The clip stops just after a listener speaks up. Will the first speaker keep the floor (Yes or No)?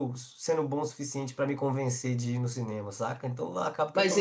No